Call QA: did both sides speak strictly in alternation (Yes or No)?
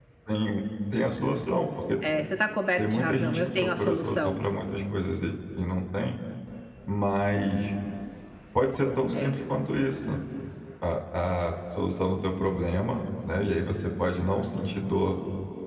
No